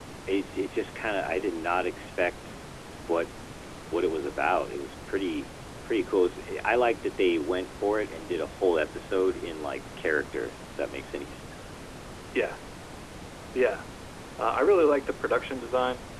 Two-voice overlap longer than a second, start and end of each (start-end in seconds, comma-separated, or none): none